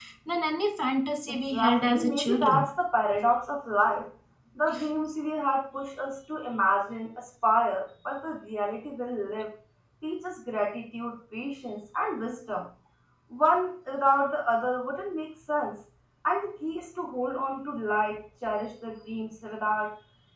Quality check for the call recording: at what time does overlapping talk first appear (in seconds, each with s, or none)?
1.3 s